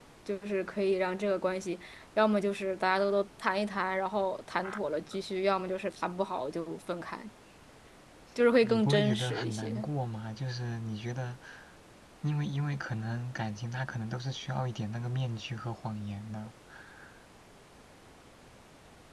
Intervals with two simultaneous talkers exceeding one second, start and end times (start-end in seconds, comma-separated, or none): 8.6-9.9